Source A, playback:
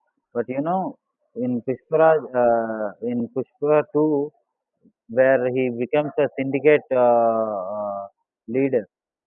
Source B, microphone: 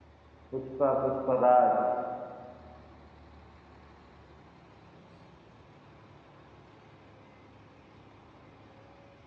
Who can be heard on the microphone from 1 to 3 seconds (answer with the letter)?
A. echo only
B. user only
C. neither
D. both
B